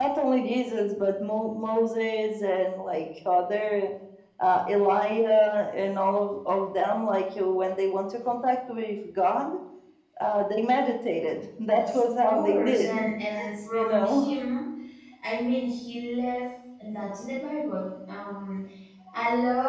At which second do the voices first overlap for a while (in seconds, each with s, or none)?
11.7 s